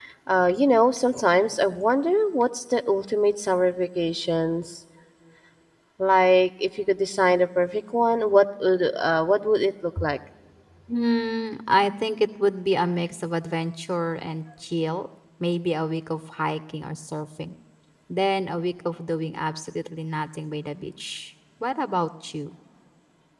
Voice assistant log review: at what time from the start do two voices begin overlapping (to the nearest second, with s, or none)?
none